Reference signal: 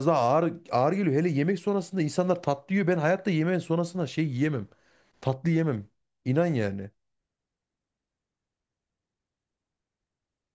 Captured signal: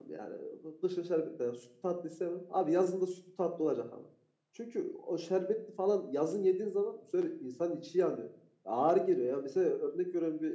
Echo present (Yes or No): No